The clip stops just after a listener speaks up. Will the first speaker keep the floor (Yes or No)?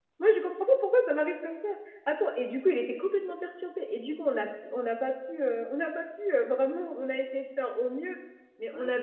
Yes